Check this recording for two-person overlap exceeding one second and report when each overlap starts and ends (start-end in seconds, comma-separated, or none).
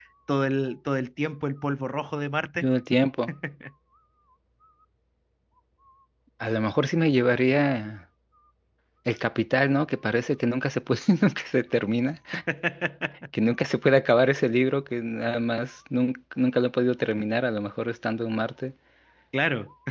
none